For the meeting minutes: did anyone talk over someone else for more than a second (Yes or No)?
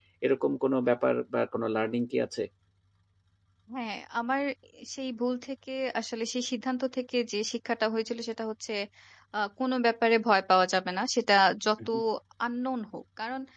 No